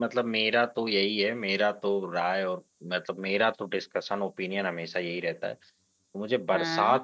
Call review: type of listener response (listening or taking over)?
listening